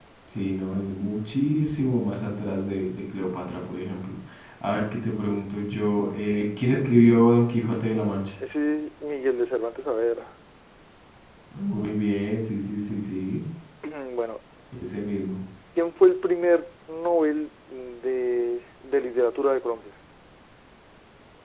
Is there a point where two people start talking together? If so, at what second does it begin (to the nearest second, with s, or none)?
none